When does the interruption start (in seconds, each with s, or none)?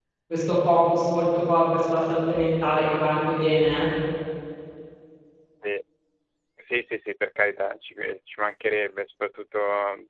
none